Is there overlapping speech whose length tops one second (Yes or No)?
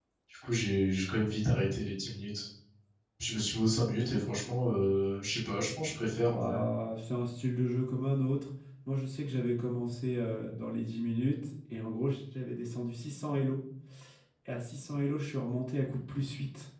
No